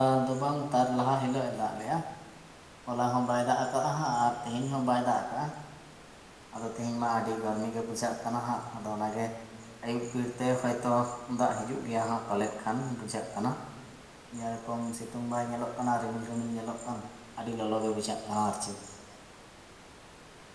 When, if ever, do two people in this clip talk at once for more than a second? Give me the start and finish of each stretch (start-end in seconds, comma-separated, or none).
none